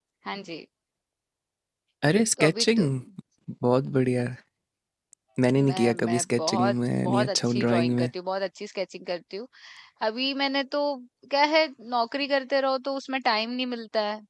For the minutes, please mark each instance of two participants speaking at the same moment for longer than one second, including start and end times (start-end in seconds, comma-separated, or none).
5.7-8.1